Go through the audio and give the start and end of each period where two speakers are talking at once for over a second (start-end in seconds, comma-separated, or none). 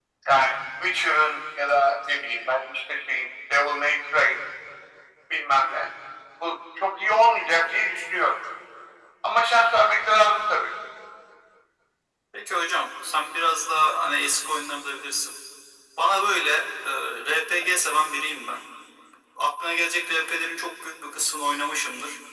none